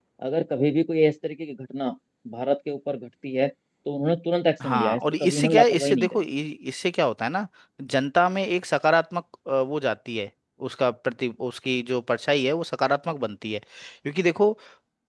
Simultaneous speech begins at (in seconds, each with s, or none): 4.6 s